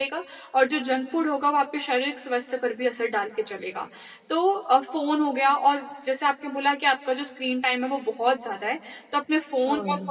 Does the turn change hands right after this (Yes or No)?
No